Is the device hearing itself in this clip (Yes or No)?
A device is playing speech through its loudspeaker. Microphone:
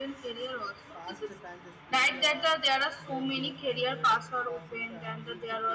Yes